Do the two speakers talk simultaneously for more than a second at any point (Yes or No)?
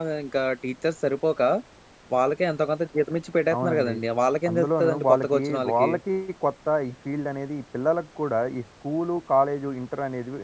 Yes